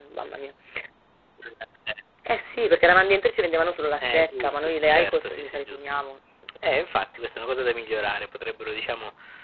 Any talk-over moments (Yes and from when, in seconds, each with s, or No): Yes, from 4.0 s